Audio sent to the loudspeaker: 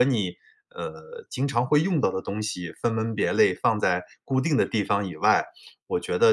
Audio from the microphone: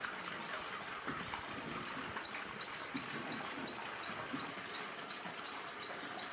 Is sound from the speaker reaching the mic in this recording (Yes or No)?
No